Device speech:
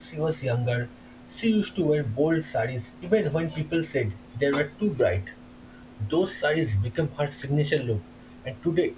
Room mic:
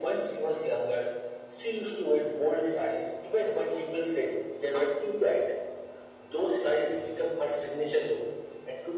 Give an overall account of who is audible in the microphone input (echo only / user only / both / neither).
echo only